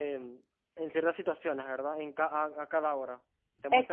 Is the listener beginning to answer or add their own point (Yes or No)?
No